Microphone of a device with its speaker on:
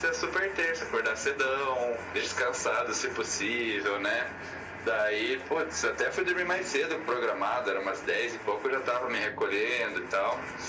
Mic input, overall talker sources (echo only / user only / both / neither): echo only